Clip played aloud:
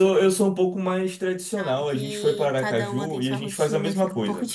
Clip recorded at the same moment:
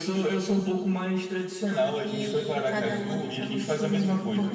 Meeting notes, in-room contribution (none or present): none